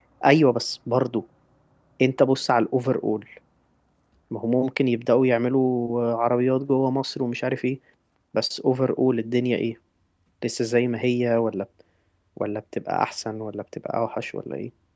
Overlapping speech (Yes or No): No